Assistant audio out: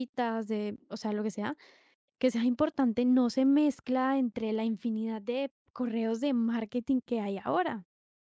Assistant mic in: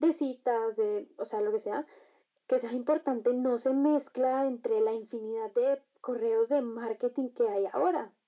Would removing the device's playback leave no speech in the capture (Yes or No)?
Yes